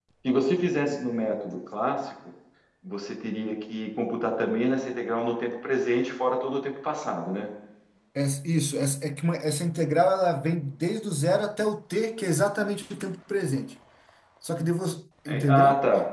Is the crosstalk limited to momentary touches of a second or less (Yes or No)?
Yes